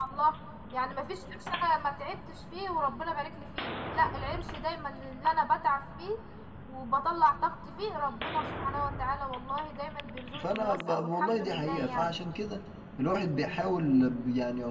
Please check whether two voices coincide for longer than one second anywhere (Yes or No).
Yes